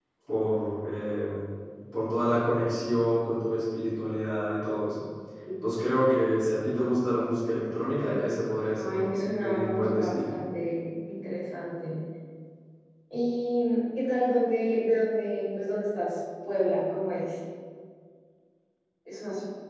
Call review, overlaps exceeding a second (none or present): present